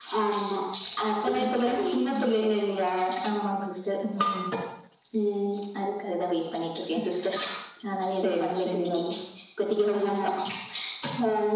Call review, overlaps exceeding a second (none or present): present